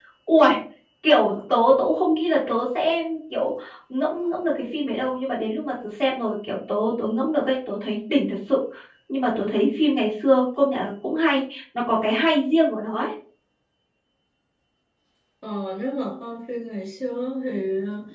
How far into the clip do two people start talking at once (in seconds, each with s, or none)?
none